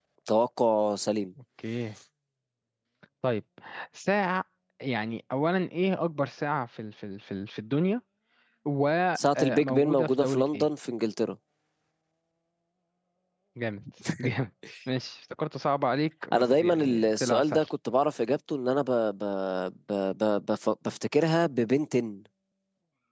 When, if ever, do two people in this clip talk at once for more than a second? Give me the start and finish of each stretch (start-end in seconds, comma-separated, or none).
9.2-10.7, 16.3-17.7